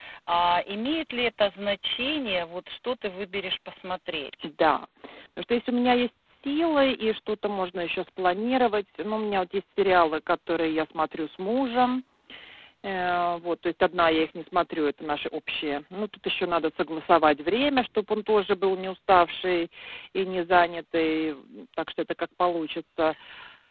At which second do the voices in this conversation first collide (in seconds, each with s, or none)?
none